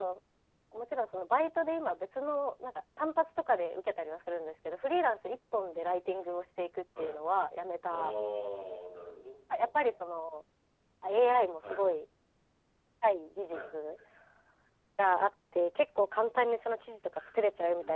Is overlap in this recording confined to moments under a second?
Yes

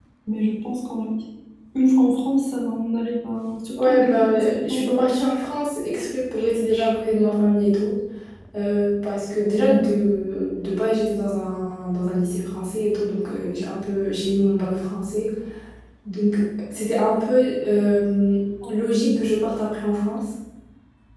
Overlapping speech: Yes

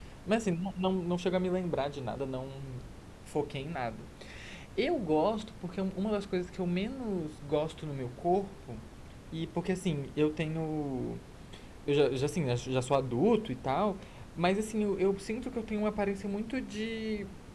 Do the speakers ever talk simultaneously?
No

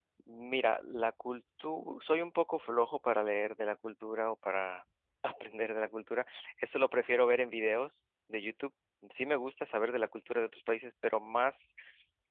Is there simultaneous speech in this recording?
No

